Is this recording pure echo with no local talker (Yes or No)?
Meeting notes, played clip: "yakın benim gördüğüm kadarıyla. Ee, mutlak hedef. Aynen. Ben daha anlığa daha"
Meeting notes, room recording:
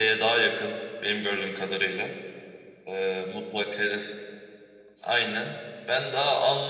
Yes